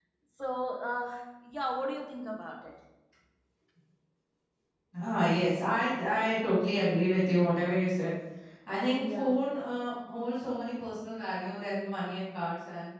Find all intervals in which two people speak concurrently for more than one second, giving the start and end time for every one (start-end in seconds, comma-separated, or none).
none